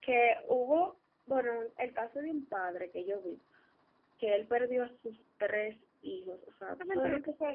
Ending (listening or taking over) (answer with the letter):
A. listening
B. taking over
B